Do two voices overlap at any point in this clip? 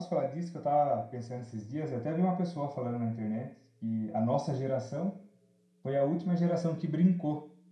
No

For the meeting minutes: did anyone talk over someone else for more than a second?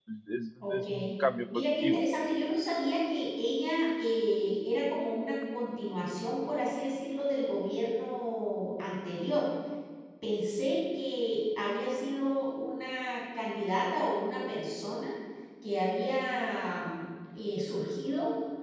No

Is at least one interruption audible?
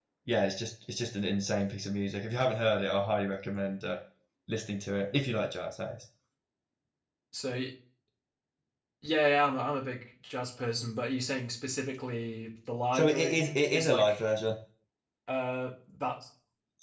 Yes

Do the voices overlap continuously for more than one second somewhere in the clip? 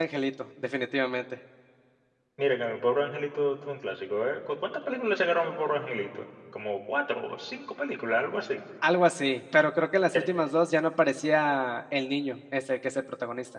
No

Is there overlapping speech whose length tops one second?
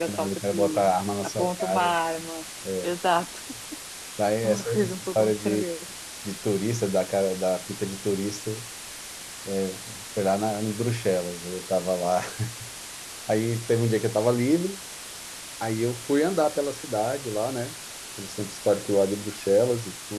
Yes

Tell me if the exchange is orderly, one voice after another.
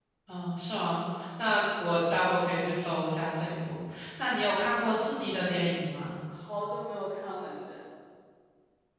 Yes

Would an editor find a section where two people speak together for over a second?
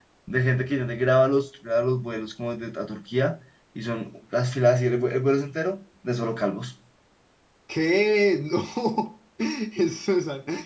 No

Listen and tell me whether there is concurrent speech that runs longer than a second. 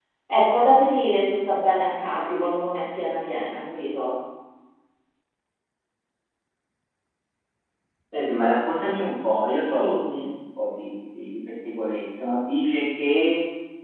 No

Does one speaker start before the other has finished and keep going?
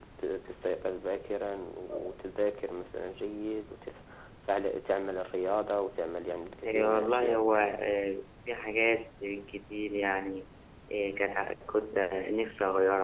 Yes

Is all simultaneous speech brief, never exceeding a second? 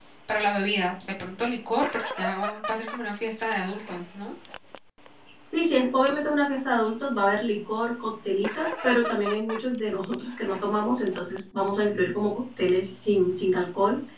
Yes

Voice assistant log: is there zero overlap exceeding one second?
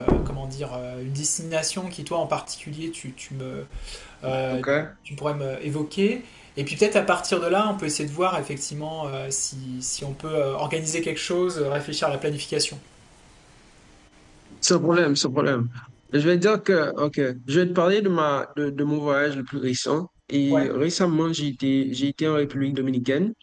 Yes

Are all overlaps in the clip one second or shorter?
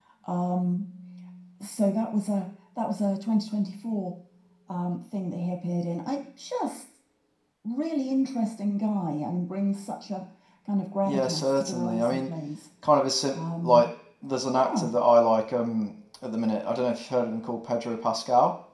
No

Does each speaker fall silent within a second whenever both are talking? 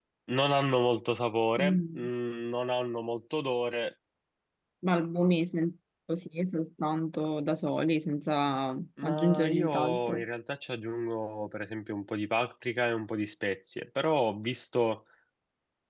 No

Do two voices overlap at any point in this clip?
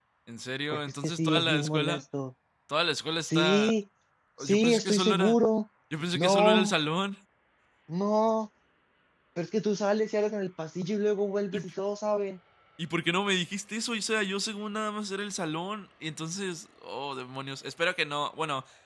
Yes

